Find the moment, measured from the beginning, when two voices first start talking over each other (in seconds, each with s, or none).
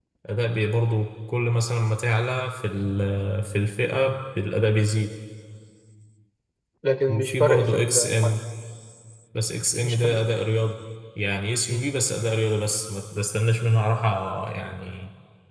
7.1 s